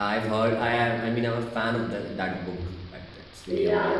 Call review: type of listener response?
taking over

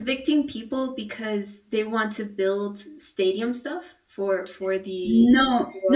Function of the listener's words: taking over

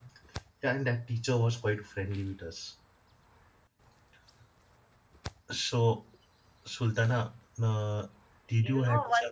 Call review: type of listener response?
taking over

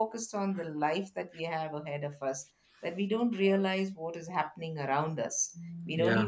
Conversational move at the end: listening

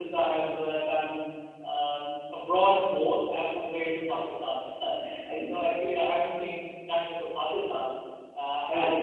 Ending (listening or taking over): listening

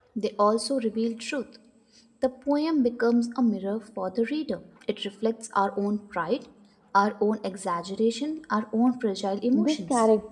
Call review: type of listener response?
taking over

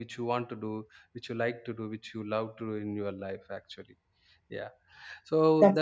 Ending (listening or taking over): listening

